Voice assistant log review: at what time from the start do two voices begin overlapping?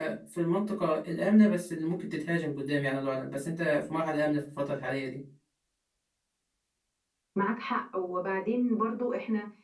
none

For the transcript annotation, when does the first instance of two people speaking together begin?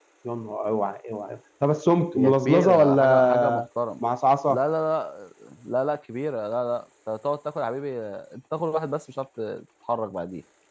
2.1 s

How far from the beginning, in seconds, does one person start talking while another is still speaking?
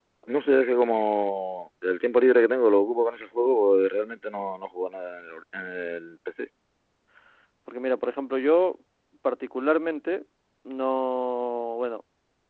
none

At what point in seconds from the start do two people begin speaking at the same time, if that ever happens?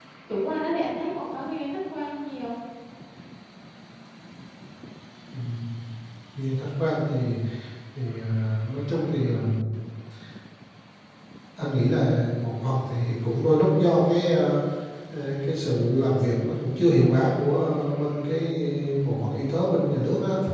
none

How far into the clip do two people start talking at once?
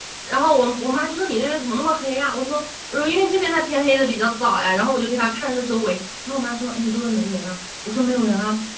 none

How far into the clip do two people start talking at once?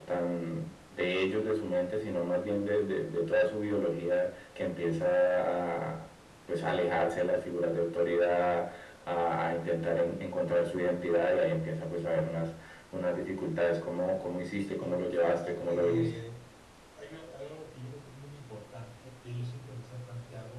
14.8 s

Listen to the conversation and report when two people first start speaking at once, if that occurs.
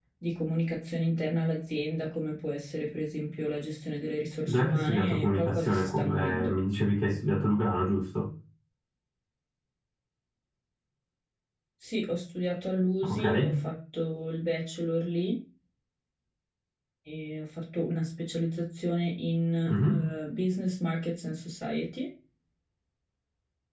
4.5 s

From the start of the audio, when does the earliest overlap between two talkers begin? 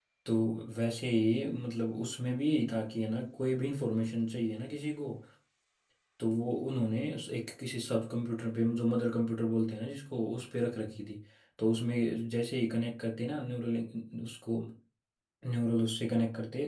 none

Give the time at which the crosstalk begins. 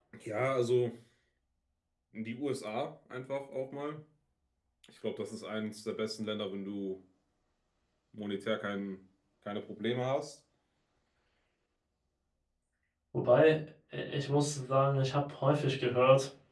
none

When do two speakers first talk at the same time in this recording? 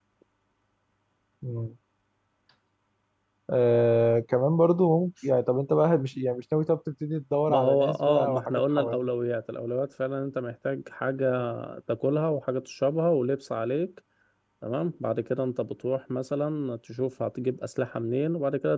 7.5 s

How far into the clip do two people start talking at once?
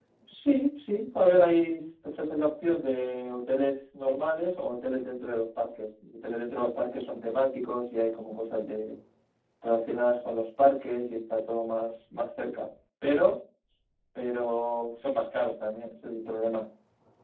none

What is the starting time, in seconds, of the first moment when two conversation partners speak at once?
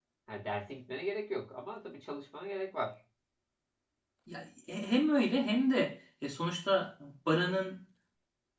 none

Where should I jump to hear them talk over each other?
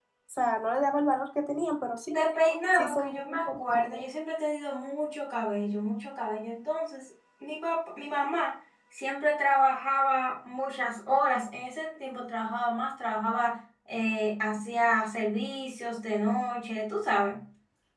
2.7 s

